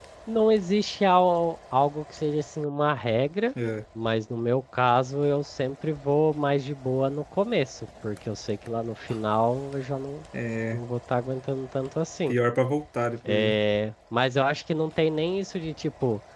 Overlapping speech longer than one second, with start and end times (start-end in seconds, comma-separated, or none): none